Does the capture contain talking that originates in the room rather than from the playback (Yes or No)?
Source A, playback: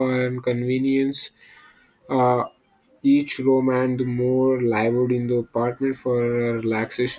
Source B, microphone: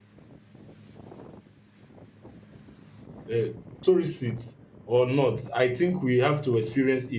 Yes